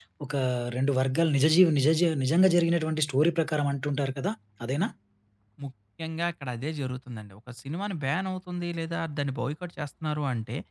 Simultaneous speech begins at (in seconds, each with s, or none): none